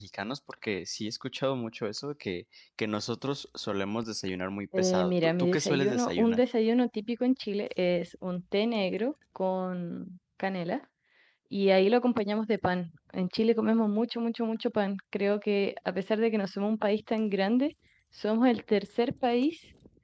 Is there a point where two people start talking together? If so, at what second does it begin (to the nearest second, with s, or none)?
5 s